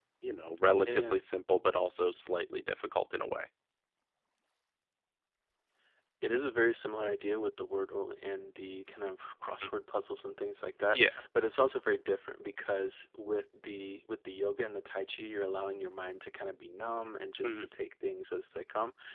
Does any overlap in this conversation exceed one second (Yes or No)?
No